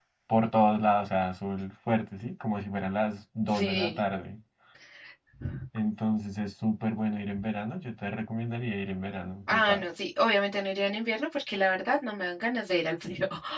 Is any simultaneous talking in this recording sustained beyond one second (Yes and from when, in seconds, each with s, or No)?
No